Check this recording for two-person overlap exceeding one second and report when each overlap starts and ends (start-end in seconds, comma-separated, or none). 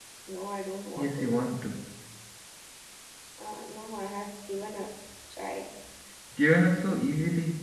none